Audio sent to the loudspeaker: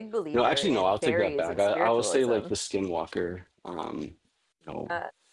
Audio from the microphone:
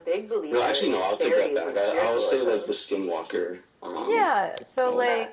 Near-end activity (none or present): present